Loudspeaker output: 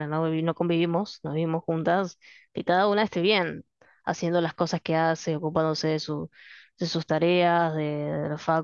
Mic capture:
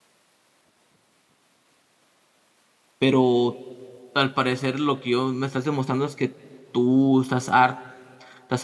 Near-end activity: present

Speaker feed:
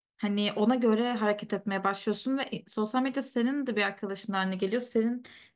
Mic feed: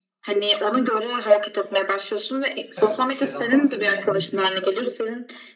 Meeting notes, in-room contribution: present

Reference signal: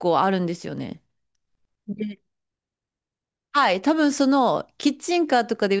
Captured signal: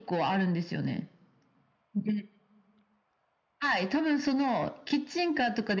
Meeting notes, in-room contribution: none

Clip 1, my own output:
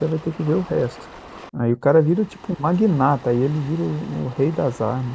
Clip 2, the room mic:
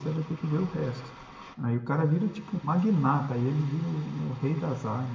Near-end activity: none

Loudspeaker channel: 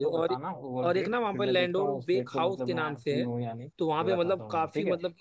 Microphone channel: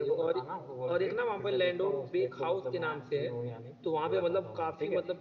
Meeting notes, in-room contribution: none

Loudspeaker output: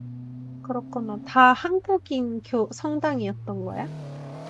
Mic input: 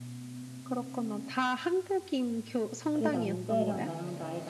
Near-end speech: present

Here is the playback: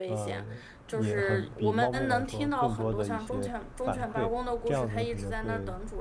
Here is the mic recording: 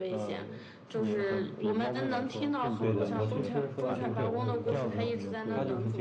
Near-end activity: present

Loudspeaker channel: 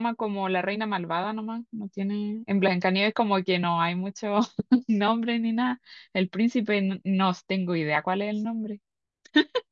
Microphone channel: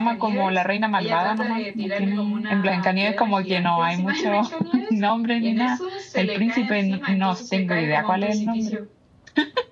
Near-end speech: present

